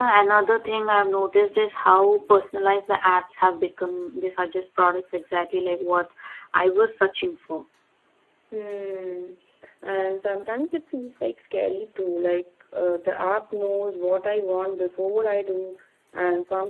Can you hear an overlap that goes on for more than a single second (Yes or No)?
No